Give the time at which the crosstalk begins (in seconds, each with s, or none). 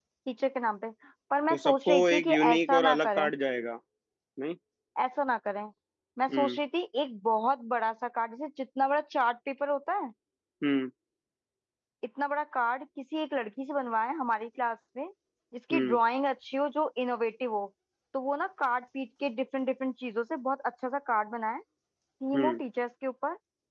1.5 s